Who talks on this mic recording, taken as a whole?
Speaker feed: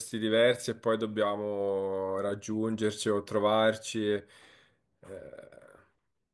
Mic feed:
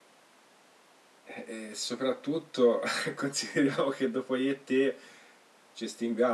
user only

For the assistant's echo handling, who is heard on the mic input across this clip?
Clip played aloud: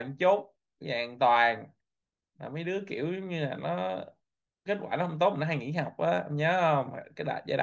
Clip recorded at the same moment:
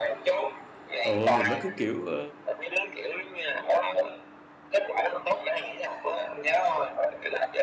both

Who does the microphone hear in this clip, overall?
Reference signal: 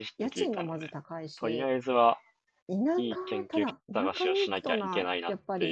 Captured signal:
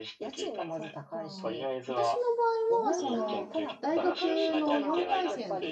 both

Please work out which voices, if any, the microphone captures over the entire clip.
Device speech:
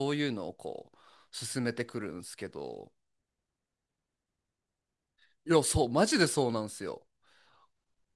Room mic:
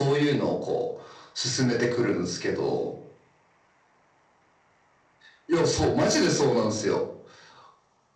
echo only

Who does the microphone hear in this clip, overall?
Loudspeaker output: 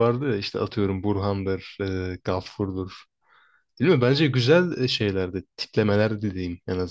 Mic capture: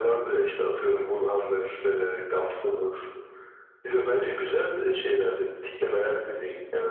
echo only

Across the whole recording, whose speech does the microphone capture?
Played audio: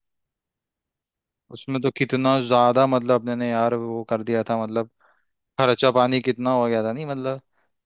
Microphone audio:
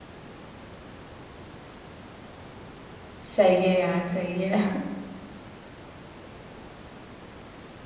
user only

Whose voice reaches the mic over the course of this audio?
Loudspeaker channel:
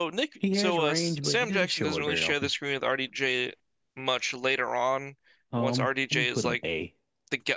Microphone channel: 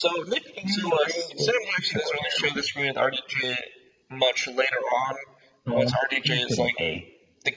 echo only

